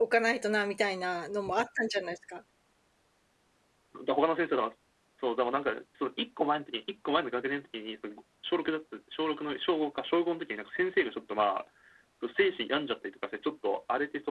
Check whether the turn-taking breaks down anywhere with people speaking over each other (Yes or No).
No